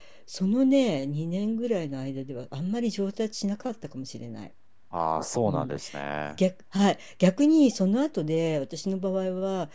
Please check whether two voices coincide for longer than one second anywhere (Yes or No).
No